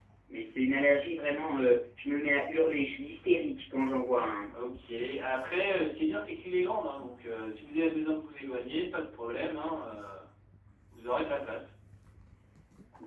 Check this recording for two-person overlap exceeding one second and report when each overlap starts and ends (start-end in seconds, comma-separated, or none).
none